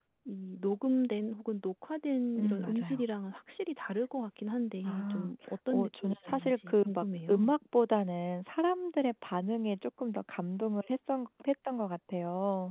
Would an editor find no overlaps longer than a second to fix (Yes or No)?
No